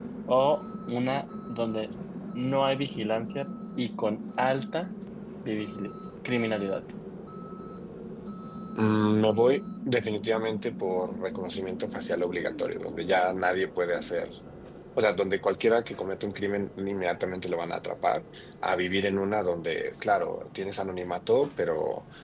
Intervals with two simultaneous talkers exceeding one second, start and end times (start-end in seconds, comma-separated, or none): none